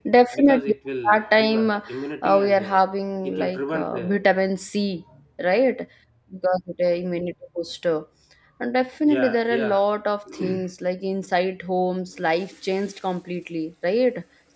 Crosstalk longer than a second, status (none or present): present